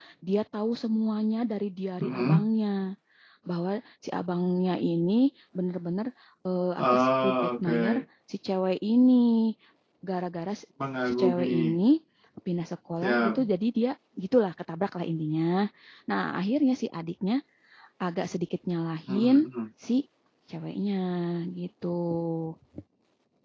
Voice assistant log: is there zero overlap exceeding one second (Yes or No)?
No